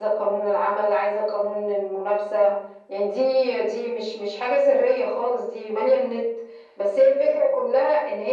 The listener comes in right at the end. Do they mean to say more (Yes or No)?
No